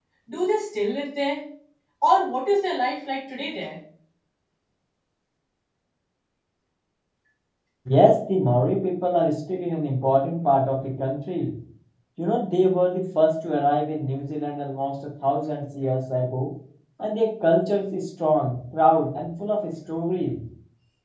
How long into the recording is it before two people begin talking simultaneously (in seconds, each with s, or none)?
none